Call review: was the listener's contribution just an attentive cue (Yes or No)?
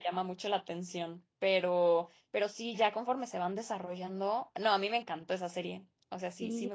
No